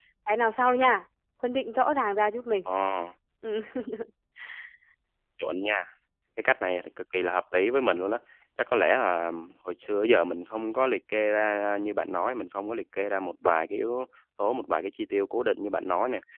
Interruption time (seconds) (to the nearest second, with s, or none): none